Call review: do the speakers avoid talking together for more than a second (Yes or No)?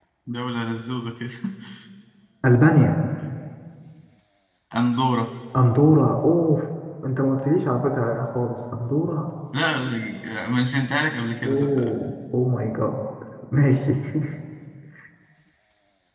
Yes